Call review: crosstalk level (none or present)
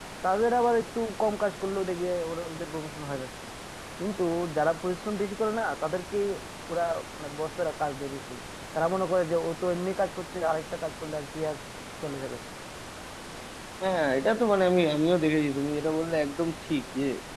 none